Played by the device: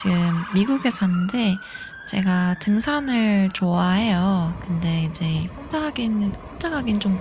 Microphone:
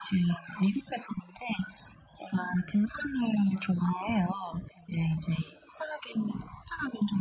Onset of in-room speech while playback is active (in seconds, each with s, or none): none